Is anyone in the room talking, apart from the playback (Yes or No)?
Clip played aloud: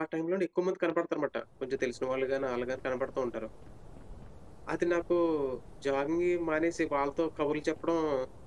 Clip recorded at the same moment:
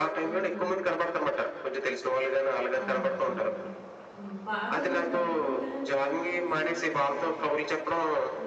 Yes